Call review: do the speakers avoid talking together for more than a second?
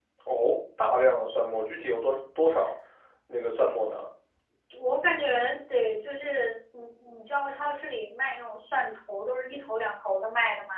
Yes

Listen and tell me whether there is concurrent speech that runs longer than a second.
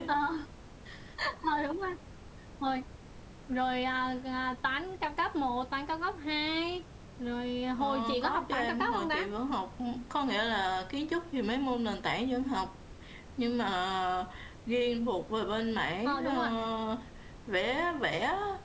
Yes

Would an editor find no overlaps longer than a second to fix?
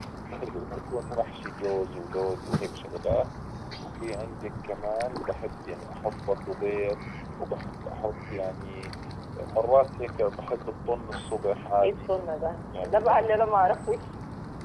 Yes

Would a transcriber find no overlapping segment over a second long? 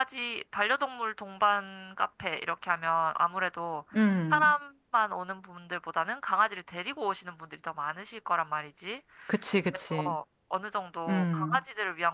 Yes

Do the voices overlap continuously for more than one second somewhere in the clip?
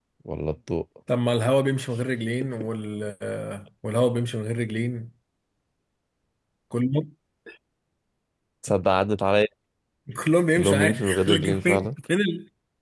Yes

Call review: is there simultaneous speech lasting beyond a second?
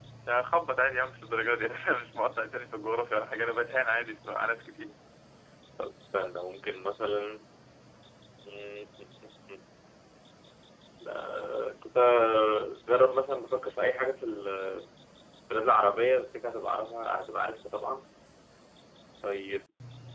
No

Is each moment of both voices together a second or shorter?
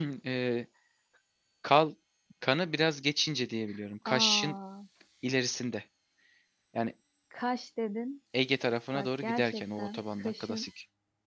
No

